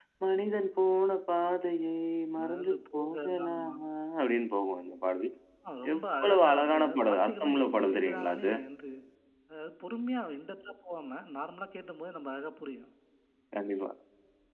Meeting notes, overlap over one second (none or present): present